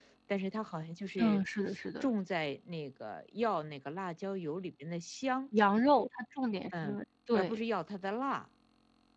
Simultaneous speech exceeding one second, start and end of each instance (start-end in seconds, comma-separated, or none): none